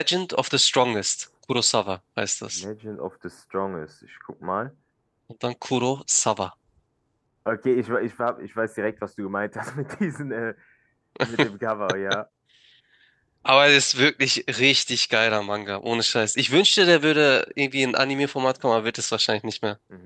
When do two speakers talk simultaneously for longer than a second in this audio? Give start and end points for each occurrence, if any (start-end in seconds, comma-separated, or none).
none